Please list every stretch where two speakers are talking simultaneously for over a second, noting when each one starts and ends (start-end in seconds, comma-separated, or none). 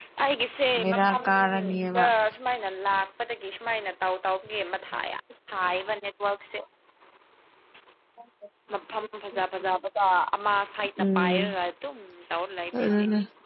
0.8-2.0